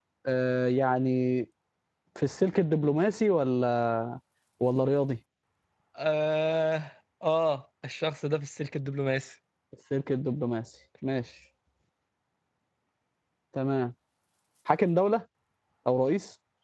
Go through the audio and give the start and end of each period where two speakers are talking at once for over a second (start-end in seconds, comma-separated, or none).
none